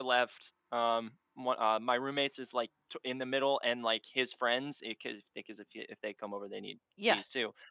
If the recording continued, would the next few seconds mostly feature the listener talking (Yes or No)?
No